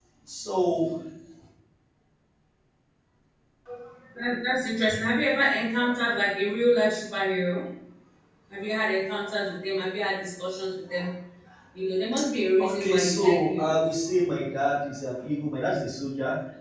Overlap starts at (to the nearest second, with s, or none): 13 s